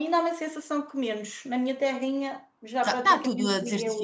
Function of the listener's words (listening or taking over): taking over